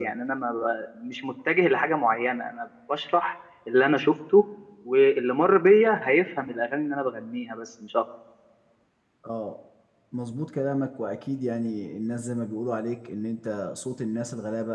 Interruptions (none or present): none